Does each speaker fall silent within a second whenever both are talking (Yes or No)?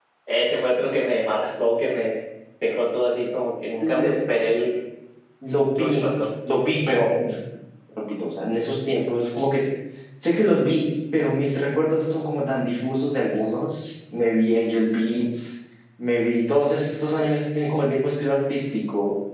Yes